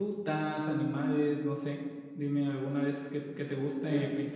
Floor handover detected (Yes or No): Yes